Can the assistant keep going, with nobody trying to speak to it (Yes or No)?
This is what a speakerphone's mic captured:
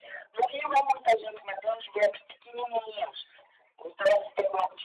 Yes